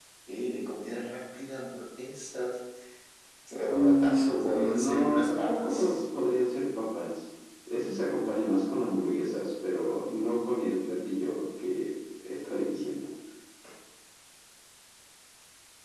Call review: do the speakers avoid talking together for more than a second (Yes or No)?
No